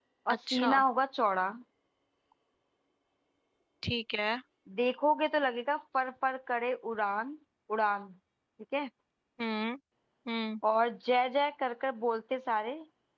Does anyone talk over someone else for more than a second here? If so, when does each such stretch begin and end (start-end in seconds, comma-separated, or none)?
none